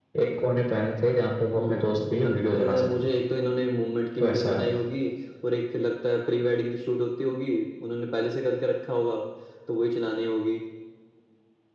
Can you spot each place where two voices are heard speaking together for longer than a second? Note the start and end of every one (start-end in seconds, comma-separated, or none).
1.6-3.0